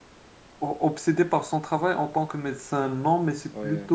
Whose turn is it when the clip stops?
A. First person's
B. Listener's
A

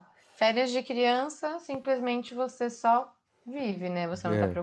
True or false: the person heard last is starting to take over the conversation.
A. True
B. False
B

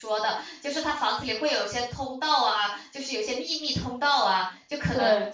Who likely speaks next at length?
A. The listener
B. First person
B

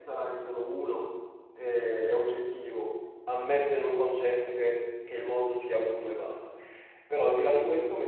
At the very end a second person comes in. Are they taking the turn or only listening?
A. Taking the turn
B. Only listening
B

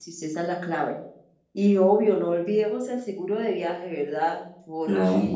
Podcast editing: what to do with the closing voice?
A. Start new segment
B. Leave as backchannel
B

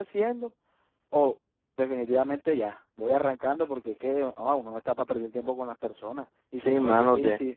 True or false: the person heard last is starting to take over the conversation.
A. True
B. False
A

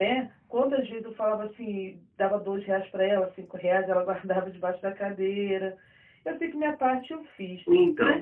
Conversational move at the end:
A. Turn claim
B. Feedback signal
A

